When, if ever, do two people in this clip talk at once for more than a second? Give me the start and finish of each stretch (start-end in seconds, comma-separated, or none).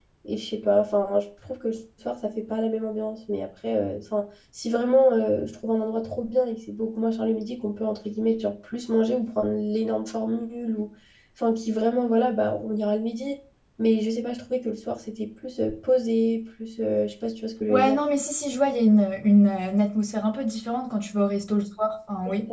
none